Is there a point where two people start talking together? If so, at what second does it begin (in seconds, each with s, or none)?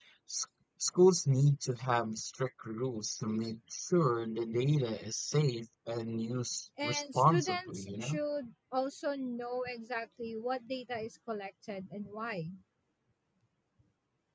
6.8 s